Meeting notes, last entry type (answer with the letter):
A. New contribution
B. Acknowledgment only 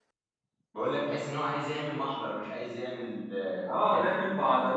A